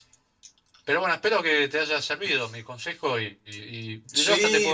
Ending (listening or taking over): taking over